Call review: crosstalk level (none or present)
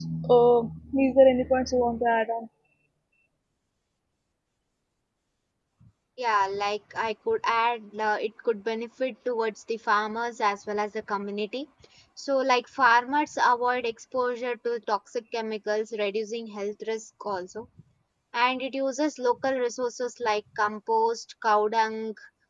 none